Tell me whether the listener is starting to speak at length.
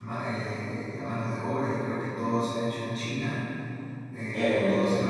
No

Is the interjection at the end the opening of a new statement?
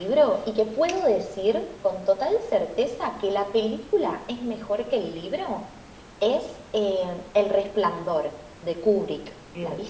Yes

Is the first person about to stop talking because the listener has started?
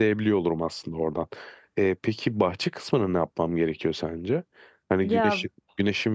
No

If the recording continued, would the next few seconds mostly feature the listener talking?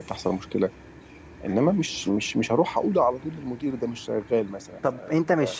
Yes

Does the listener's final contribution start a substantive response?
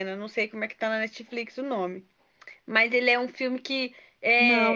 No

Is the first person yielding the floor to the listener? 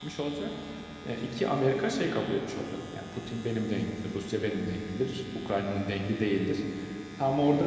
No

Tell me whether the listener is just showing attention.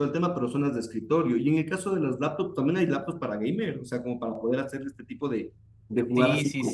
No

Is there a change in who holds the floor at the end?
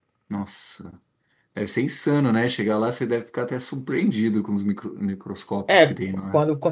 Yes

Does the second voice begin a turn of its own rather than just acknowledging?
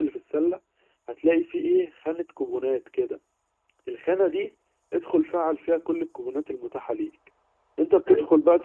No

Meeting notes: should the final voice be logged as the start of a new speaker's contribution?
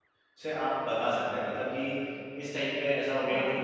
No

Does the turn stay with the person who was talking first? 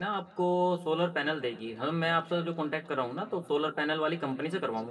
Yes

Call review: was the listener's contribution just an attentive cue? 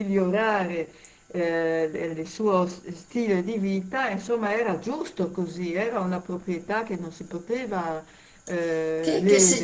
No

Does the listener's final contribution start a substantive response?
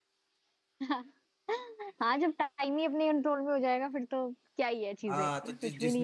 Yes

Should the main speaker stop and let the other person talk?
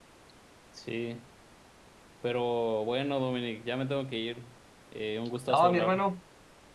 Yes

